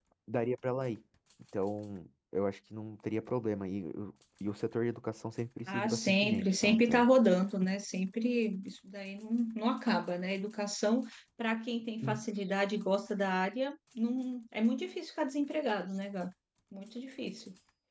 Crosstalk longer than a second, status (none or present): present